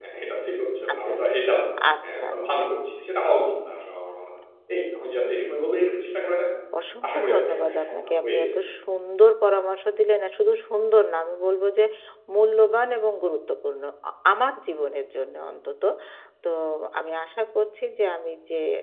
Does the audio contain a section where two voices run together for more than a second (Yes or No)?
Yes